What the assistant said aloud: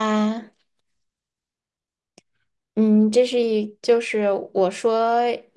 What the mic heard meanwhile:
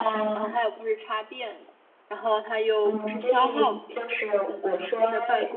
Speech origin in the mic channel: both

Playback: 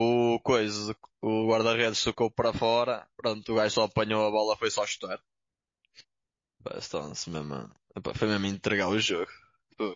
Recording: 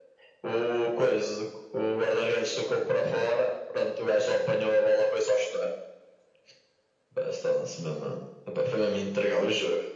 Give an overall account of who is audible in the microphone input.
echo only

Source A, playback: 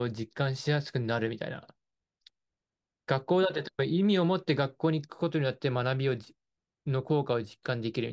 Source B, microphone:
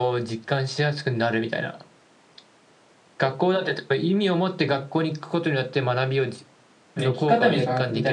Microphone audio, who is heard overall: both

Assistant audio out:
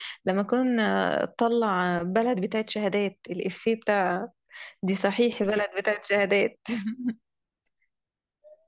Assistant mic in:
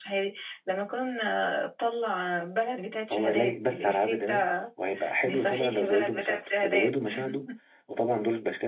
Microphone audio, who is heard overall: both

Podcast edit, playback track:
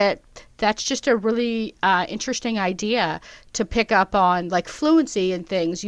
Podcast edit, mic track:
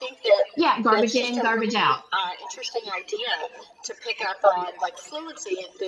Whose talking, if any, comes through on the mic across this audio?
both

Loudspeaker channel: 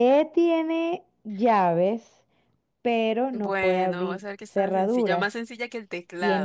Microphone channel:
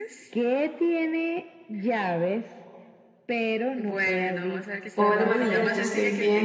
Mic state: both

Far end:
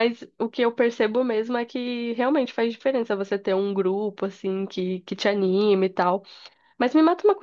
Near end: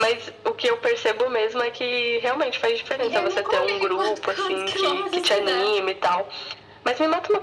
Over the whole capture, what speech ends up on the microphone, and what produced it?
both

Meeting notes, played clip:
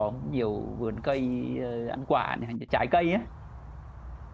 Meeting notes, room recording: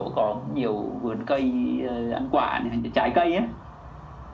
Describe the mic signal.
echo only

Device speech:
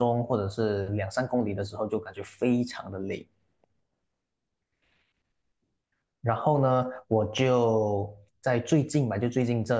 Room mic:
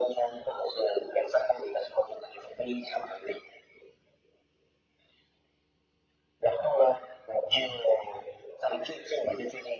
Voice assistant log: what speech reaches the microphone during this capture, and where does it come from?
echo only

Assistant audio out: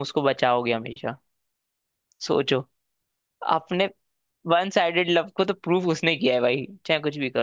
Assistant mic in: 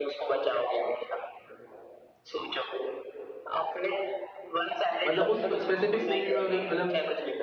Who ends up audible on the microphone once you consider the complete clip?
both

